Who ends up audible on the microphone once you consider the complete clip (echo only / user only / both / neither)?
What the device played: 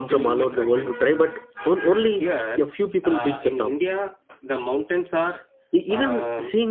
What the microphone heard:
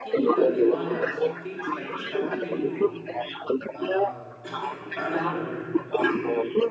both